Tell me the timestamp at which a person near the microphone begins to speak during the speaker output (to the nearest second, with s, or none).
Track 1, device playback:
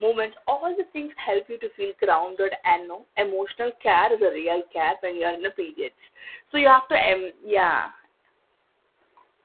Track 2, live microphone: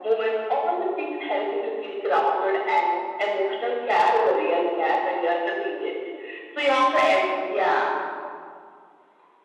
none